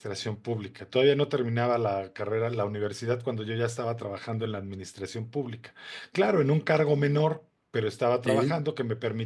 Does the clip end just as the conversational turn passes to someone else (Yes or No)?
No